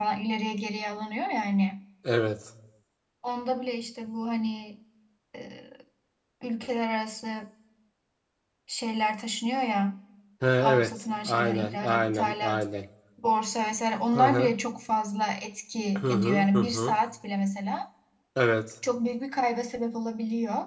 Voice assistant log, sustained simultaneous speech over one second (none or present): present